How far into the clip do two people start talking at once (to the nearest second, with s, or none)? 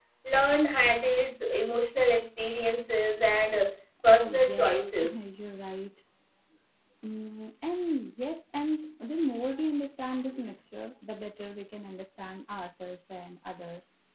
4 s